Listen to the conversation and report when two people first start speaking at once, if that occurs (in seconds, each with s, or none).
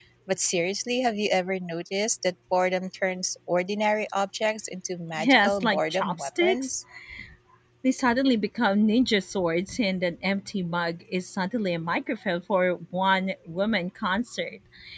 5.2 s